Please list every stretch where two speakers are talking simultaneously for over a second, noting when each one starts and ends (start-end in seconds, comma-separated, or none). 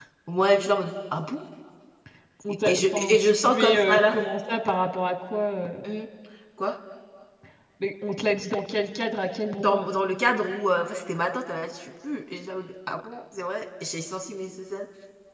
2.6-4.2